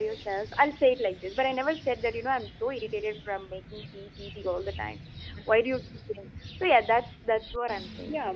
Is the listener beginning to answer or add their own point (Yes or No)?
Yes